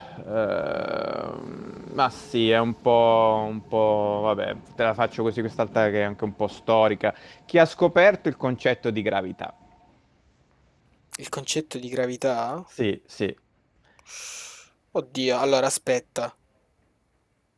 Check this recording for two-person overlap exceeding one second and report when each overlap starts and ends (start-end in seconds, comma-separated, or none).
none